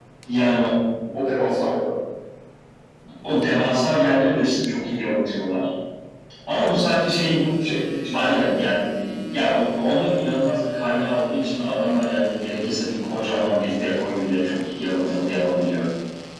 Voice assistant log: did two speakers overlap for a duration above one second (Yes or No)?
No